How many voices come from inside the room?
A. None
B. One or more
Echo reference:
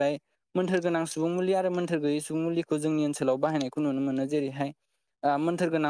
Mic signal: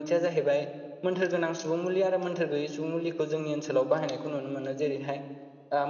A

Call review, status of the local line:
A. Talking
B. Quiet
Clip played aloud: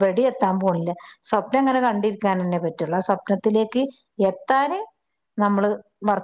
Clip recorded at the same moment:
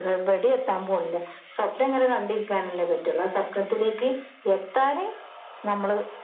B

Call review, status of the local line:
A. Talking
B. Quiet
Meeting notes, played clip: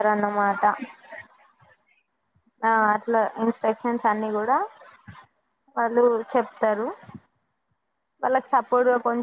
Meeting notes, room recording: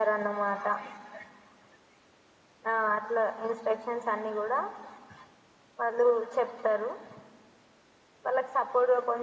B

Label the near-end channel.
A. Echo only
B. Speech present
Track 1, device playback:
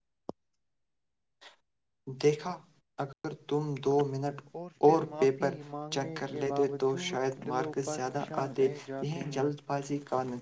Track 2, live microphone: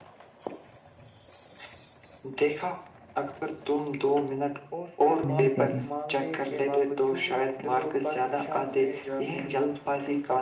B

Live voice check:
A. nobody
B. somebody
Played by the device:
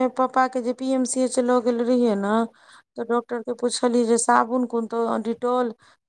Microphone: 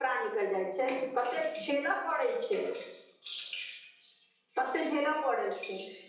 B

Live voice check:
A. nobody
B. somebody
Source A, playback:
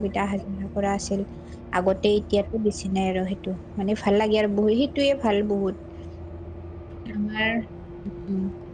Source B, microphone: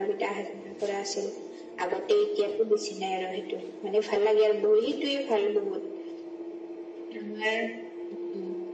A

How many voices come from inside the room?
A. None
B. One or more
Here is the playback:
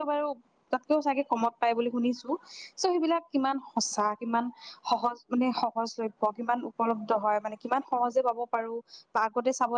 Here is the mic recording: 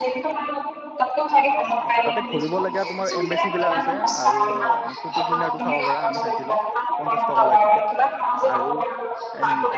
B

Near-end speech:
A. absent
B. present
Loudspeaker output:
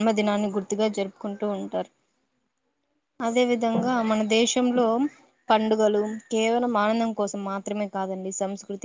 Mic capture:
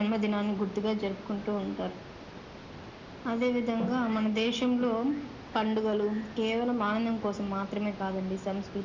A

